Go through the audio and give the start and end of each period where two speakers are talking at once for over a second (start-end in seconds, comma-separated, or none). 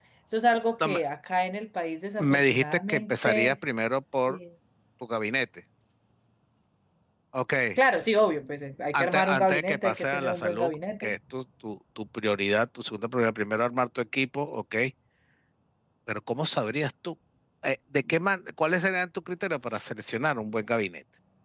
2.2-3.5, 8.9-11.1